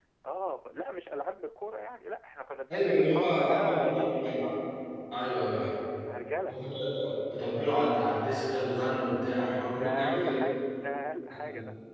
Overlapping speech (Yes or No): Yes